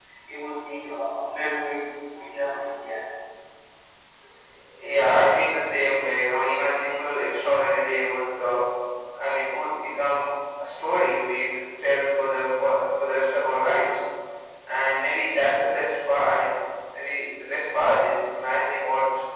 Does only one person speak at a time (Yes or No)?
Yes